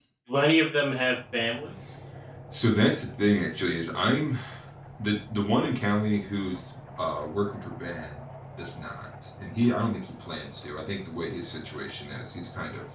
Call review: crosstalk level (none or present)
none